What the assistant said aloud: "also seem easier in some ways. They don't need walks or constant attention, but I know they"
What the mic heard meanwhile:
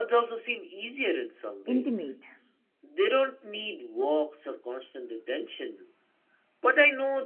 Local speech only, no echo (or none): intimate.